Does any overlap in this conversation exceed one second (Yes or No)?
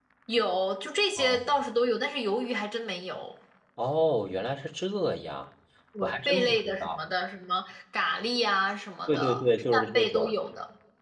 Yes